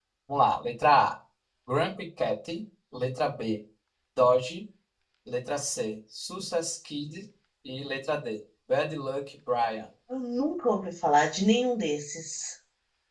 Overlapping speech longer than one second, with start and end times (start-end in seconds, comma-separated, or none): none